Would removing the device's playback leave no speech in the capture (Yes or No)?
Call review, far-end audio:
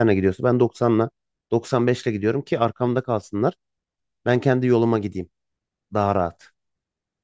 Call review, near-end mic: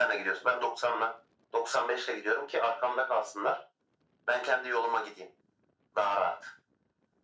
Yes